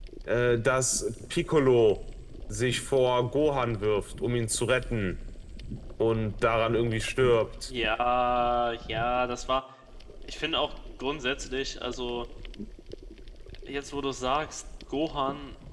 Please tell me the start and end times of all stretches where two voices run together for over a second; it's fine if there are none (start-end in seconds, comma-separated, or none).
none